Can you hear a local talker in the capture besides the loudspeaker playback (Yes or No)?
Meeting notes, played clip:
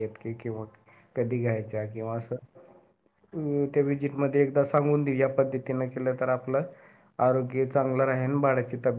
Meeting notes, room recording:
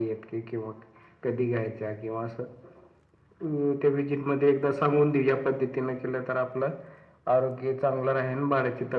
No